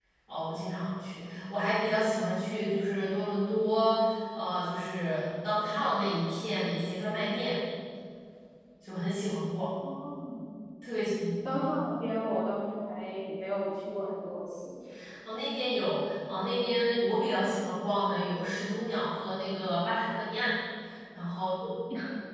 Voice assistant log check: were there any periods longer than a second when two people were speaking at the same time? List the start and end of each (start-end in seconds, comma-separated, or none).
none